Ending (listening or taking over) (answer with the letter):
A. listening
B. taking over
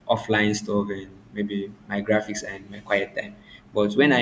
A